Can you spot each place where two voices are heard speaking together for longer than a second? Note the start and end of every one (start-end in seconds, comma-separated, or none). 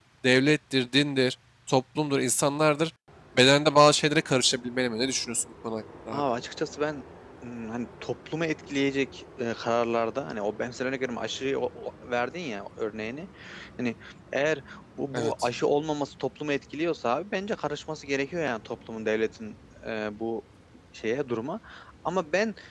none